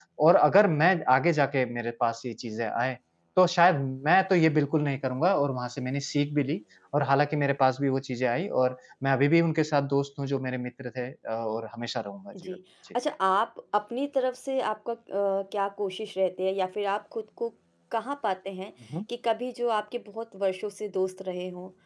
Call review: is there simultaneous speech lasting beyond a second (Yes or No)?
No